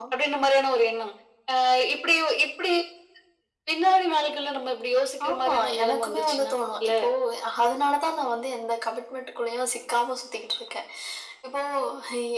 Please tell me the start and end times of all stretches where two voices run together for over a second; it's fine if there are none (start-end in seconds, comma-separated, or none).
5.3-6.9